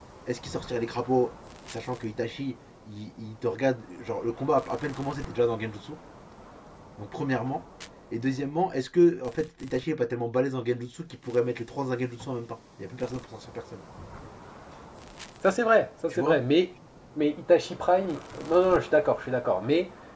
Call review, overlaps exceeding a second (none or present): none